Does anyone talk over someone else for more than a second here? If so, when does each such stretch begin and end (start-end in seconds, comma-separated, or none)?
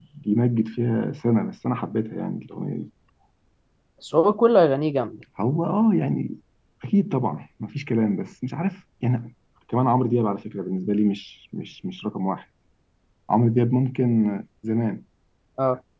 none